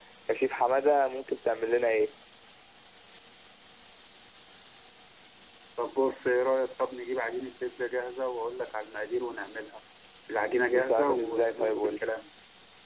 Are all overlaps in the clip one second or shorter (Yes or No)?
No